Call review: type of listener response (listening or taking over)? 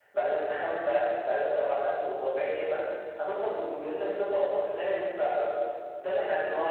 taking over